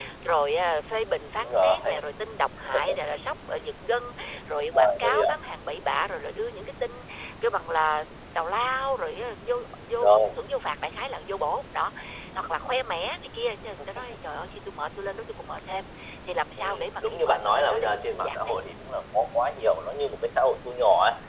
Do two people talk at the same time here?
Yes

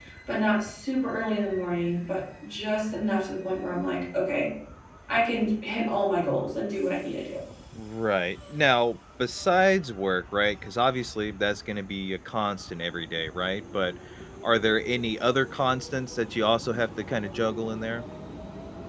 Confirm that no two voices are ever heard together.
Yes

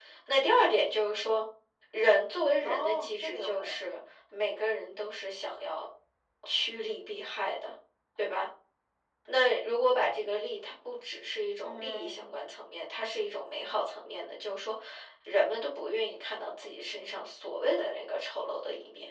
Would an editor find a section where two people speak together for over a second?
Yes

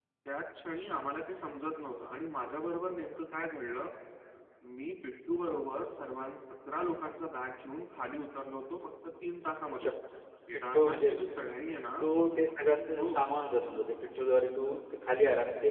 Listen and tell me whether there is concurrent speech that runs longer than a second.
No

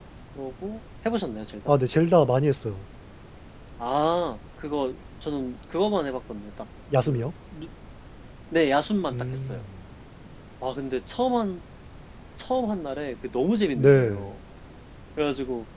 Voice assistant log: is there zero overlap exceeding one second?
Yes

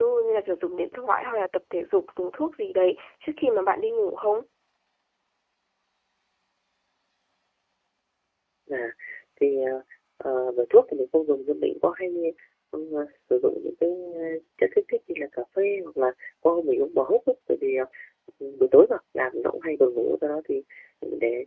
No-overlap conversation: Yes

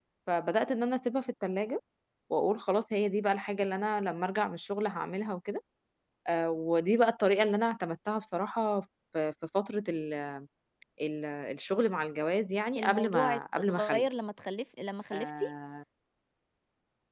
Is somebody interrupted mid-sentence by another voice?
Yes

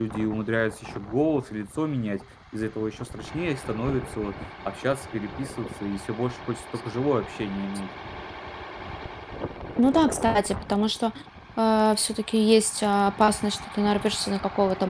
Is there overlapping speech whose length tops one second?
No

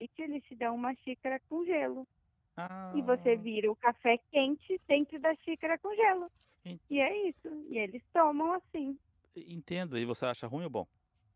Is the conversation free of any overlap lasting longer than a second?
Yes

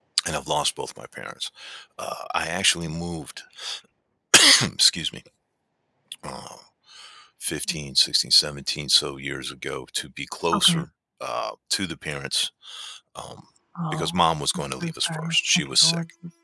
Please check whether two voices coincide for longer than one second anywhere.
Yes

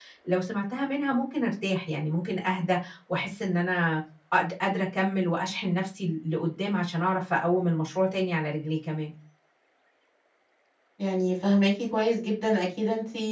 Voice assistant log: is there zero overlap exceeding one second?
Yes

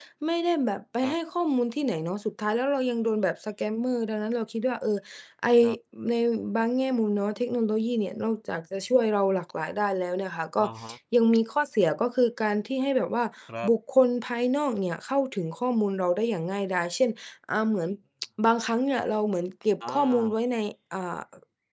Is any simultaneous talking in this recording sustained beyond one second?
No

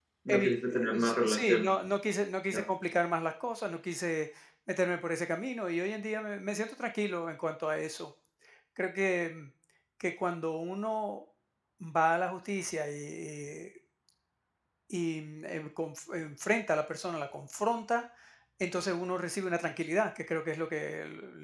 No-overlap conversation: No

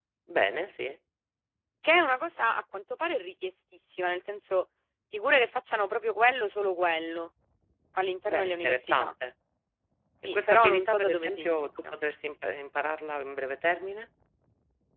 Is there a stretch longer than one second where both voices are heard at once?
Yes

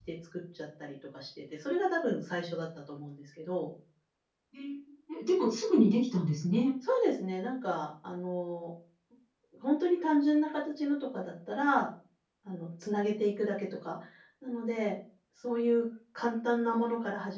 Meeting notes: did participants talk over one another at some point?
No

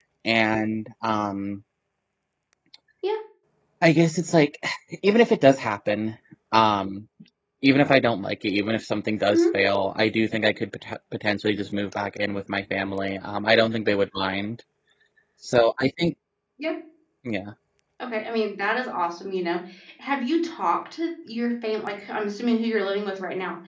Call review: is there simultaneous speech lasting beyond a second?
No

